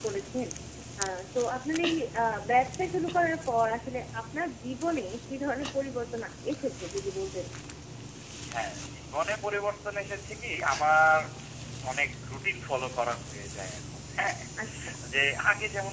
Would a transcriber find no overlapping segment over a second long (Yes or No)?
Yes